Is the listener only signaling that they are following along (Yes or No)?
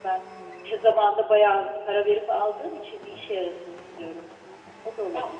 No